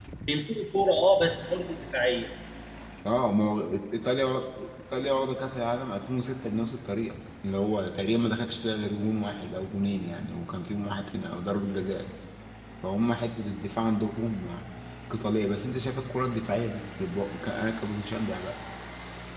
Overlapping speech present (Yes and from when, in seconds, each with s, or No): No